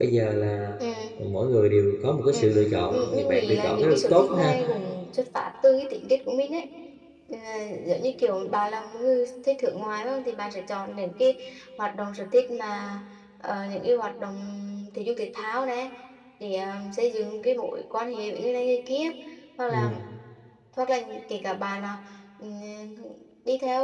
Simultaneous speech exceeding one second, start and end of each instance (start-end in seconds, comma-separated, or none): 2.9-4.6